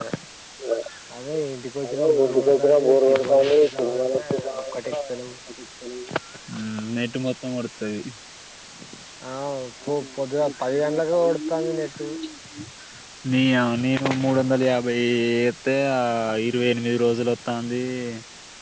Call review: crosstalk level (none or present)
present